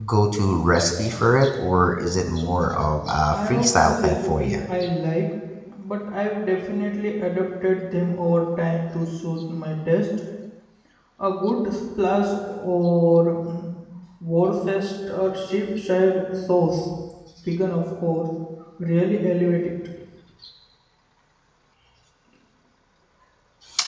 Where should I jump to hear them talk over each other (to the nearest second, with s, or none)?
3 s